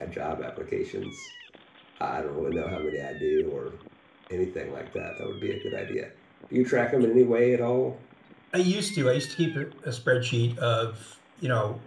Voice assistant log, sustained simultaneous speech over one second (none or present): none